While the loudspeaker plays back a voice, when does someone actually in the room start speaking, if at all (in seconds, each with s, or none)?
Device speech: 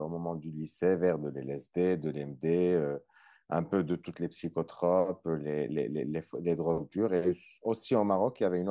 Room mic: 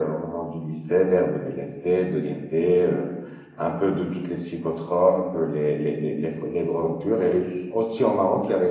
none